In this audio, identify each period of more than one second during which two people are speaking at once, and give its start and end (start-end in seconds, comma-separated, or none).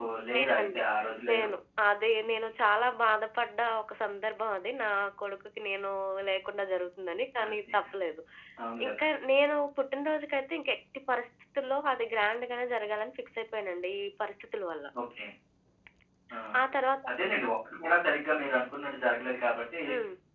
none